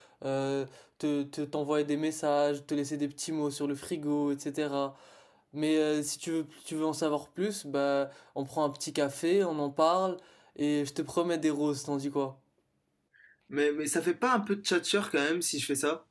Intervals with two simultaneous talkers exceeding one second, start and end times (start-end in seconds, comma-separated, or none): none